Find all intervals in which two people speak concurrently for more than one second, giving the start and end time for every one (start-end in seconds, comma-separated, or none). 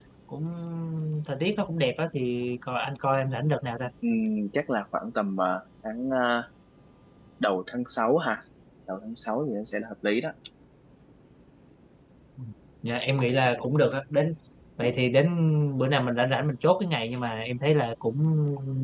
none